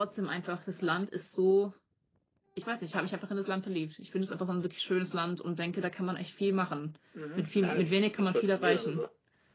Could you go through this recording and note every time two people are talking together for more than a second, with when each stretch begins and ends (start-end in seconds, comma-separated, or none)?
7.4-9.0